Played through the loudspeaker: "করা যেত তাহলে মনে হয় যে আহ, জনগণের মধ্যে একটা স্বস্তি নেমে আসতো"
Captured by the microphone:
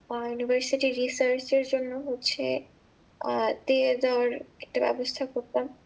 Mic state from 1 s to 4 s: user only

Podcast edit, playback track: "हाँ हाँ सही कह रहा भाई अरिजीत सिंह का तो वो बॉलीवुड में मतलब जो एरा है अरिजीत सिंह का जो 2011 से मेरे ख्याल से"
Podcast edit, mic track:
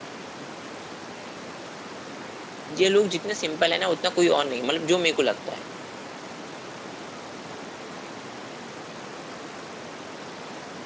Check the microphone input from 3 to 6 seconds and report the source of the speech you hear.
user only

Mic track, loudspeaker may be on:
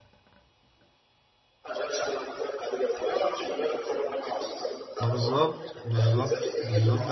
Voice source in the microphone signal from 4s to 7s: both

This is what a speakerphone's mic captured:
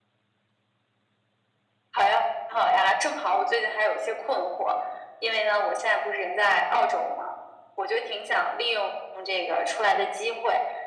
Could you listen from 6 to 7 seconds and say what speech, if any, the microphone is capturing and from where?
echo only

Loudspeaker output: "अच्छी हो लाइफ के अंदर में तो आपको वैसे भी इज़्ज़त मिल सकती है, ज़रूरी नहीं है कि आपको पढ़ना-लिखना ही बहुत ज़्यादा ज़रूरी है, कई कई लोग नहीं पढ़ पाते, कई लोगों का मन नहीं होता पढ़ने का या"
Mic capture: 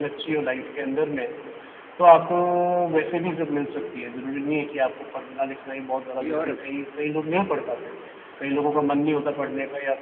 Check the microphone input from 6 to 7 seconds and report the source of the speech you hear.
both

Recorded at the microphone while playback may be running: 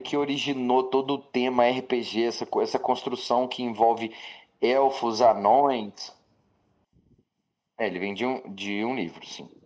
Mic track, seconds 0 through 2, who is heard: echo only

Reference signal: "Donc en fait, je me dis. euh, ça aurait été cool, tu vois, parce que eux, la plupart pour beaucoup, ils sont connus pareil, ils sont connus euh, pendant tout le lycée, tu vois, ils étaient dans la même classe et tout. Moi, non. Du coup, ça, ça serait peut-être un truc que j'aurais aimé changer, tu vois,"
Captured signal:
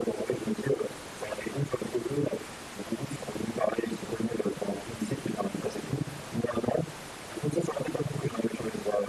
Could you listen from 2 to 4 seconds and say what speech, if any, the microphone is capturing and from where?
echo only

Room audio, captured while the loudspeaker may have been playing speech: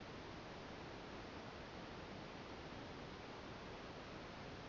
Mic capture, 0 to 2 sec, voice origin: neither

